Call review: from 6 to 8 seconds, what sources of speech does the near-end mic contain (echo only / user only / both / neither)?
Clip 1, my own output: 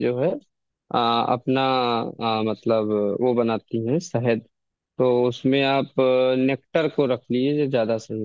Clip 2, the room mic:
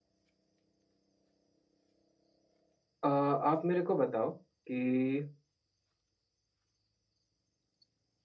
neither